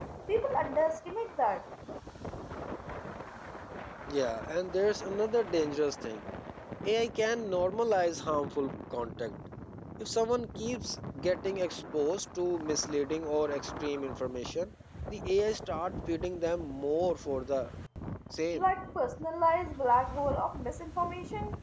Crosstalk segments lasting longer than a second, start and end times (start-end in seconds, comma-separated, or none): none